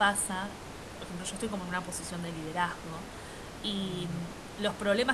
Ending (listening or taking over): listening